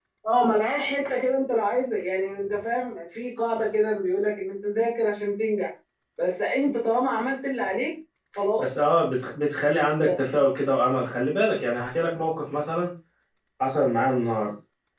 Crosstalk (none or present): none